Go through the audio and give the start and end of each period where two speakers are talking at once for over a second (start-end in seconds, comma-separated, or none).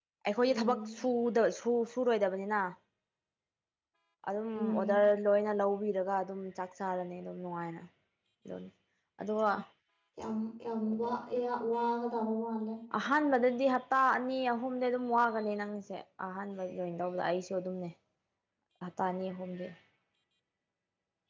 none